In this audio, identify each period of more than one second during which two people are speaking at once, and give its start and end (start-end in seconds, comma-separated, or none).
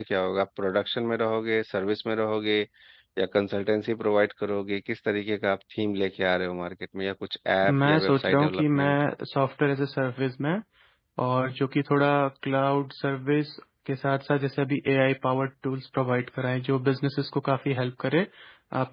7.7-9.0